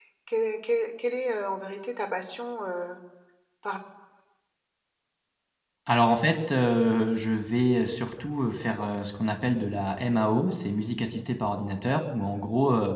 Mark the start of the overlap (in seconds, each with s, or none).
none